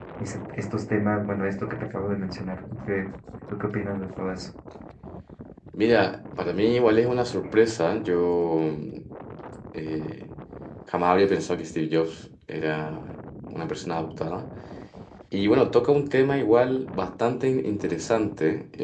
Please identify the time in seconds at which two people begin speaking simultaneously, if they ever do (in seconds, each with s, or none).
none